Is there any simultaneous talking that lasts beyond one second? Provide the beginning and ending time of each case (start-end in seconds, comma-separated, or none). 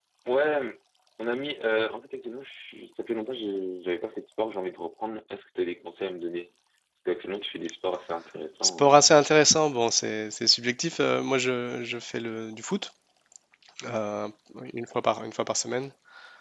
none